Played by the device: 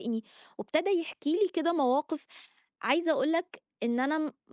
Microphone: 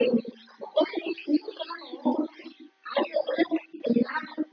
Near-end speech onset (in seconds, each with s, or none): none